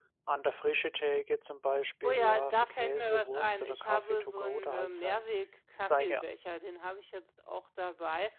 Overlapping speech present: Yes, from 2.1 s

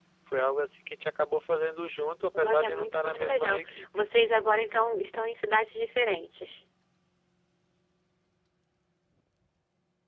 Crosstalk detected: Yes, from 2.3 s

